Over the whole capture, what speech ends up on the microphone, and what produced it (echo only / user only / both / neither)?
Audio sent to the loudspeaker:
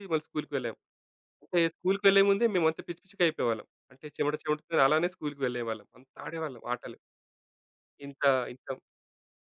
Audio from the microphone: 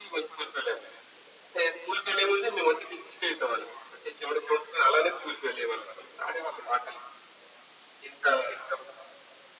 echo only